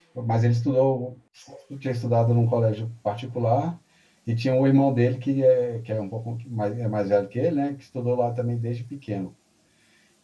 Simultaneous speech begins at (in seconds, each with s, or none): none